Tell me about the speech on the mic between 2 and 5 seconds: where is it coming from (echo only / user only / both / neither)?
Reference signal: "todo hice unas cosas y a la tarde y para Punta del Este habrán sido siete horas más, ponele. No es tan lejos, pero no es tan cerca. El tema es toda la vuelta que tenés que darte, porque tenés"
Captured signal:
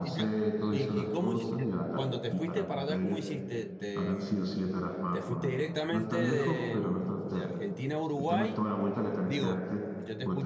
both